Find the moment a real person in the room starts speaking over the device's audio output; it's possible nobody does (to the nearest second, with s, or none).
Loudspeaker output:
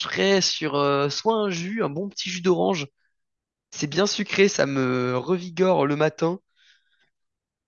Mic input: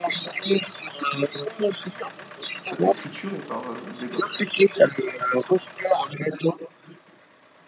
3 s